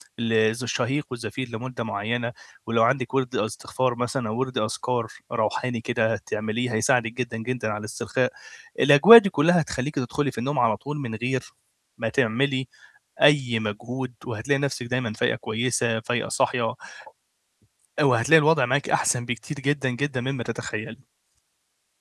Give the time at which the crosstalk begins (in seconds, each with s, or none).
none